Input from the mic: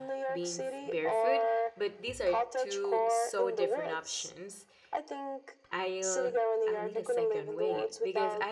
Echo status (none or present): present